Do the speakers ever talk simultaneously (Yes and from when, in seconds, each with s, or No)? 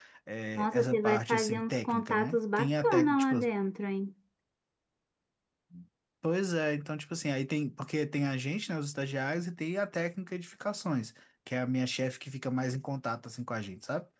Yes, from 0.6 s